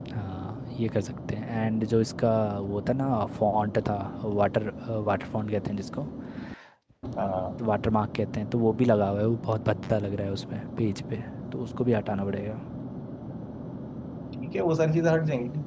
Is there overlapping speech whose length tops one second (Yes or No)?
No